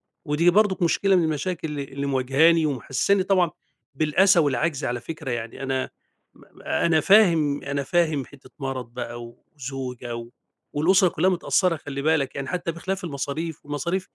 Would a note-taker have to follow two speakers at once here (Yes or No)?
No